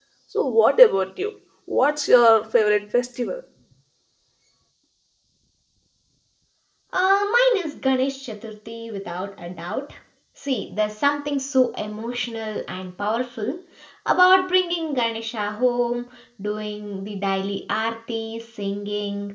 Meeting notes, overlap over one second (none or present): none